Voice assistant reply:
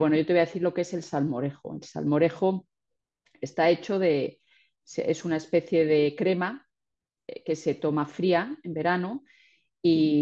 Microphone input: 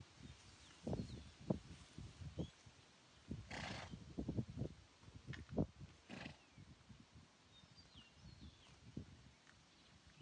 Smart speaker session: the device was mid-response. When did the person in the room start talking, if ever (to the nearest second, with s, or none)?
none